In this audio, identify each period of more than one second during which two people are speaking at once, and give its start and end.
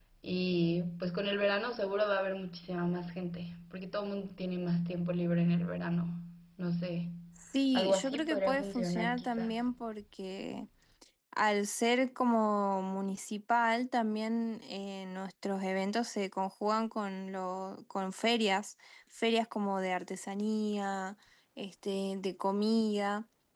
7.7-9.7

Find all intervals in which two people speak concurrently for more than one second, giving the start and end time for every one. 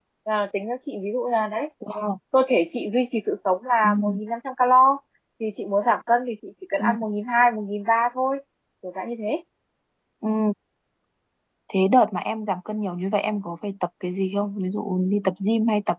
none

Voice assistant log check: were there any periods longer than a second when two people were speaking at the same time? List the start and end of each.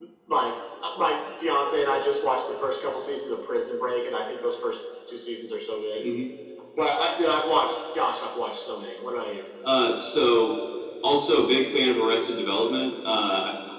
none

